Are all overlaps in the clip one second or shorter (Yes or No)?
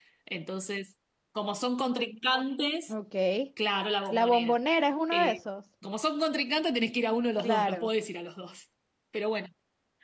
Yes